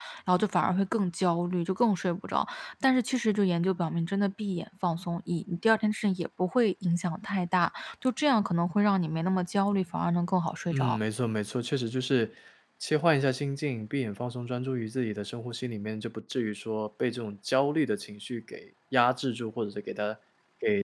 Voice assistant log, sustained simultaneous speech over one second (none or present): none